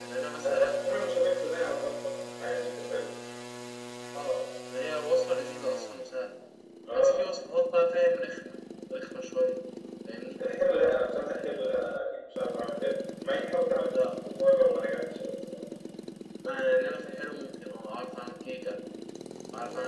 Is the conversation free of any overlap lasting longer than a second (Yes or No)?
Yes